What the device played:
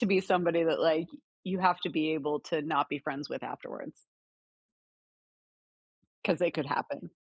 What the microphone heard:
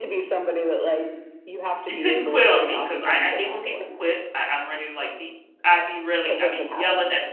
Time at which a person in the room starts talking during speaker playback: 1.8 s

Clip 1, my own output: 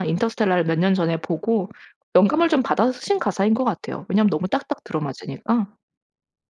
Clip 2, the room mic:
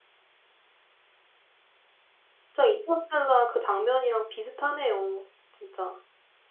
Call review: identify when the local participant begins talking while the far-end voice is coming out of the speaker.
2.4 s

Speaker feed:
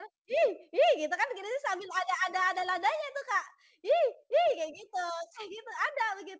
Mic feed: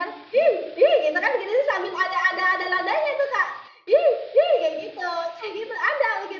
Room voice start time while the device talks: none

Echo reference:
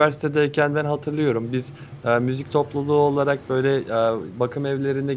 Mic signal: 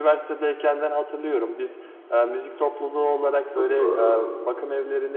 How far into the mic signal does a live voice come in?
3.5 s

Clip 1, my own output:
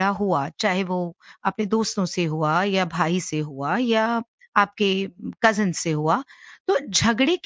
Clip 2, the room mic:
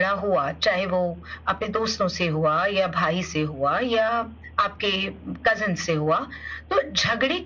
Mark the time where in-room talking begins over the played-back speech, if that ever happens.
none

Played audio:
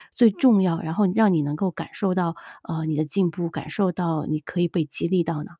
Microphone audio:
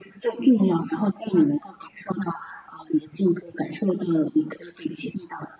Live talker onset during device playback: none

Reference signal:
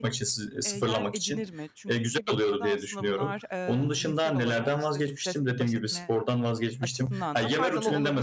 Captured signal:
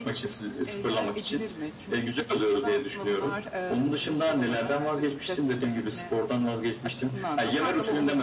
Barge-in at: none

